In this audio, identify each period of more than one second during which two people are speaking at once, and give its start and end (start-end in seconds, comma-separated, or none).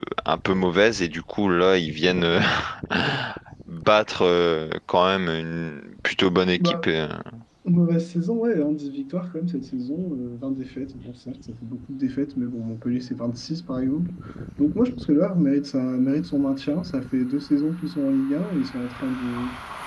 none